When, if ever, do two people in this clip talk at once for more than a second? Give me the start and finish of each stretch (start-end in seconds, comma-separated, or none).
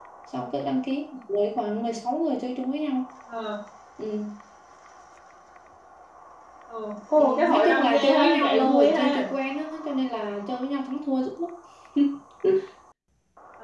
7.2-9.3